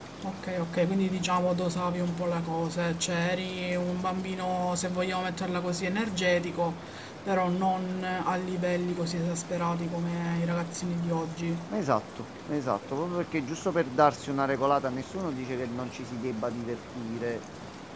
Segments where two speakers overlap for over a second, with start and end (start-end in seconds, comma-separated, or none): none